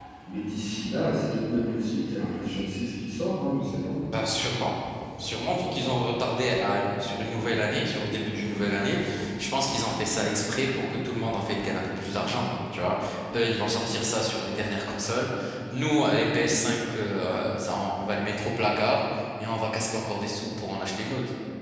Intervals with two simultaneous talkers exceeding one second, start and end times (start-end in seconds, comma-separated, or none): none